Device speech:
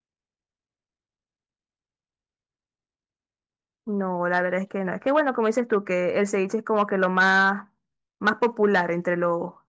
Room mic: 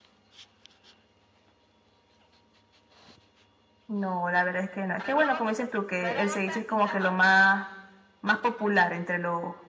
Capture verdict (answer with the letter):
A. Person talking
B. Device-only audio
A